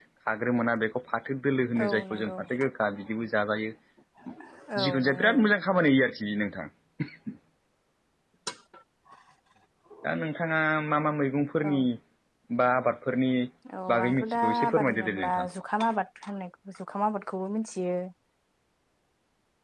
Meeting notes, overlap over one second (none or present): present